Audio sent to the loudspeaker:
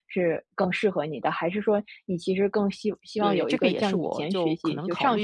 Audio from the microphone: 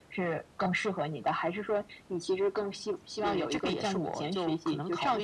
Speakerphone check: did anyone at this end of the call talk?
No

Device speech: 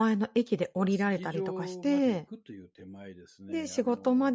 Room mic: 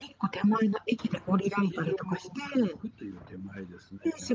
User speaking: No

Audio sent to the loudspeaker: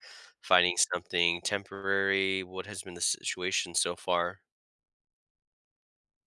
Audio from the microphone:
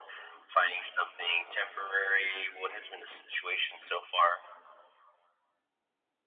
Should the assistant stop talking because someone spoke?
No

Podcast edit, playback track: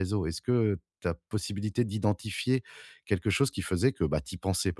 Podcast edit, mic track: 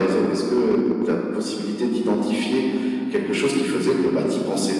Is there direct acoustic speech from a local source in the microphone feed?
No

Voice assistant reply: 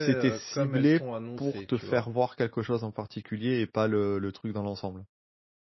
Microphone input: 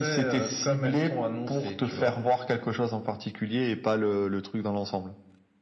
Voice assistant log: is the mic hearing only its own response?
Yes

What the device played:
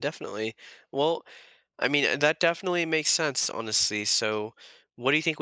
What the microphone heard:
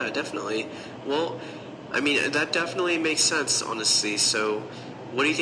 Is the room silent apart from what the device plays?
Yes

